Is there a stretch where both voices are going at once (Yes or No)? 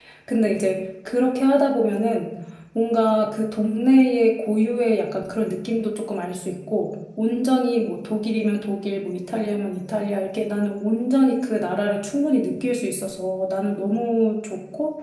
No